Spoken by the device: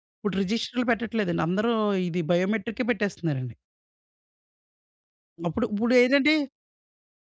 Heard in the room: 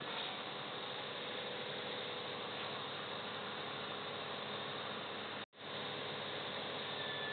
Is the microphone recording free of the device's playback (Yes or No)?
Yes